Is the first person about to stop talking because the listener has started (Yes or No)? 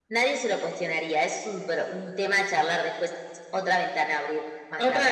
Yes